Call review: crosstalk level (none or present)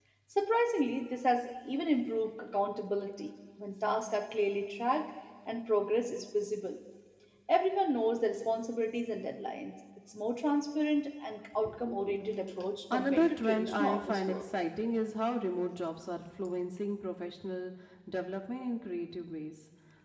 present